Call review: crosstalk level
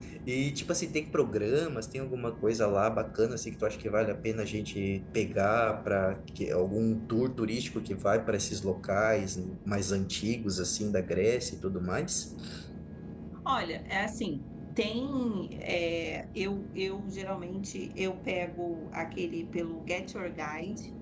none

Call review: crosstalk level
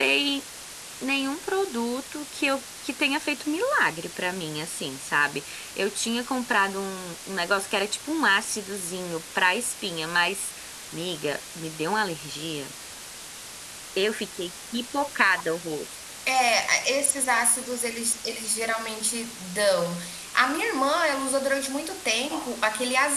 none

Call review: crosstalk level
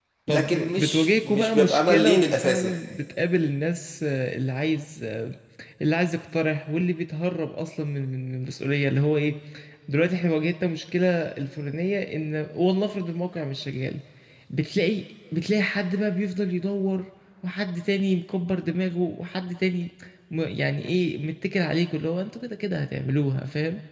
present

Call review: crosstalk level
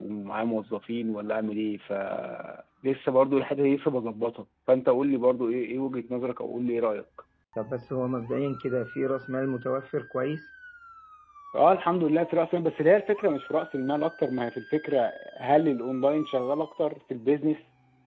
none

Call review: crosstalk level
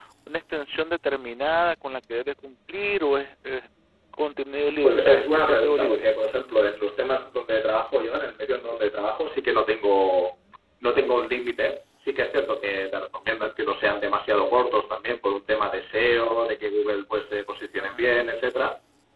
present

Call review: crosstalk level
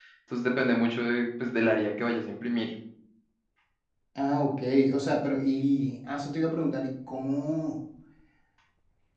none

